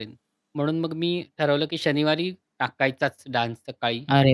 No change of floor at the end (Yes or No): No